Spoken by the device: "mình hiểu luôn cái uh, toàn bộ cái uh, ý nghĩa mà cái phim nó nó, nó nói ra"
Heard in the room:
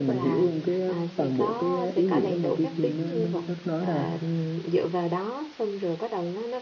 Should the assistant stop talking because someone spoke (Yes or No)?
Yes